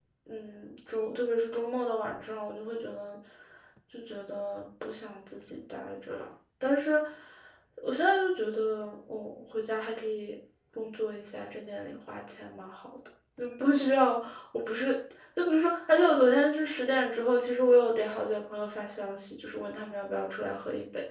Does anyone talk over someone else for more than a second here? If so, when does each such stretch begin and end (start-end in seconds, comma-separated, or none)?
none